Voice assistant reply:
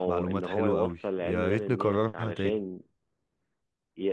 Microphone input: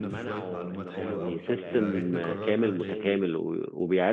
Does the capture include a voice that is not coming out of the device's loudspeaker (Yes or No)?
Yes